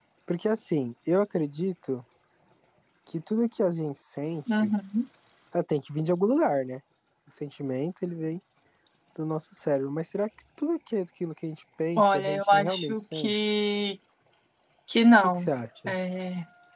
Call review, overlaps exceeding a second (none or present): present